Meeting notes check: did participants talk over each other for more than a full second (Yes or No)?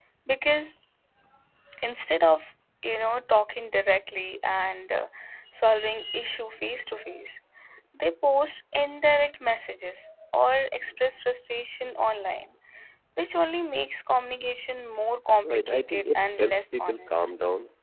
Yes